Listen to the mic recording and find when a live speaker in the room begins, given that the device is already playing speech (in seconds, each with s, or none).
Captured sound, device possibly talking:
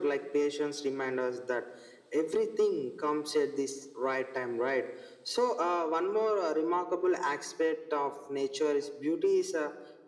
none